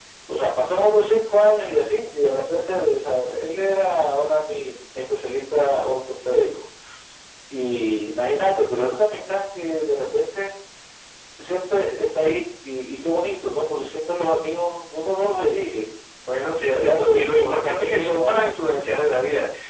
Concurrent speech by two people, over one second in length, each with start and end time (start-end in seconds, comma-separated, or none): 16.7-18.5